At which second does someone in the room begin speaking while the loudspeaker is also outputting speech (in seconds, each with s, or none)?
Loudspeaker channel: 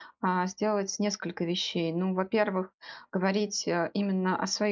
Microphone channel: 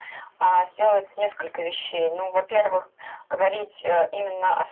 none